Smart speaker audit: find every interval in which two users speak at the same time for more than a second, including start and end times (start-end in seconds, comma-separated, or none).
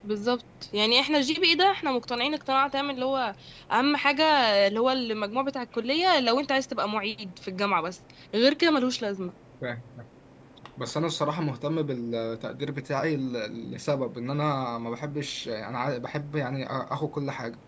none